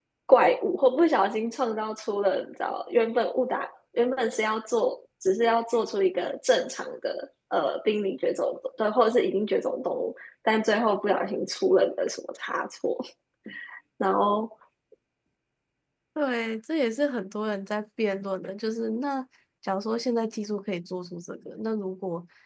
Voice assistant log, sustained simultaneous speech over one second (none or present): none